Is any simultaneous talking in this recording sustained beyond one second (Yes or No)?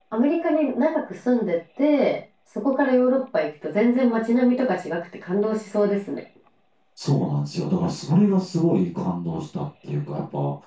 No